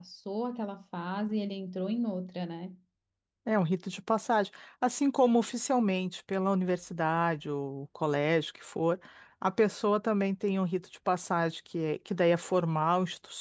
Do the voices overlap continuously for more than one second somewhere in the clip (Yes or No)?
No